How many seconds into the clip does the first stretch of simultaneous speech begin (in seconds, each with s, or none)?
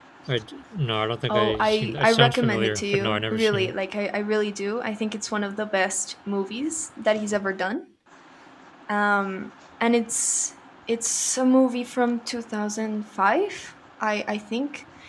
1.3 s